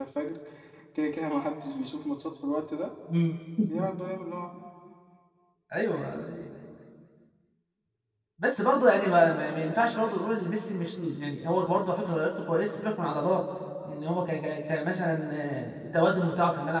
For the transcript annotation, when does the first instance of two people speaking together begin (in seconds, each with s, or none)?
none